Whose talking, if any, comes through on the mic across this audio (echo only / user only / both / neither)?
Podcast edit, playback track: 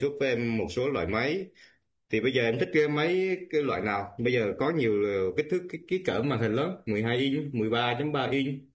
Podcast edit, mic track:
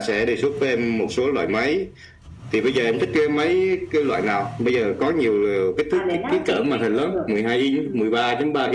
both